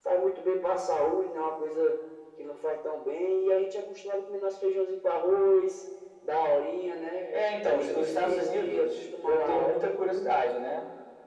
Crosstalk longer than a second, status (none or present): present